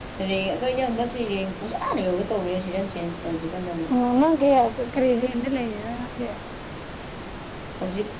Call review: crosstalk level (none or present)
none